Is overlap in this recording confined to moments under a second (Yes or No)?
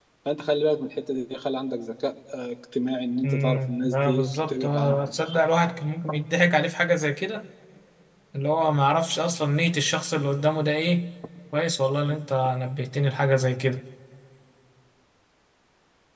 No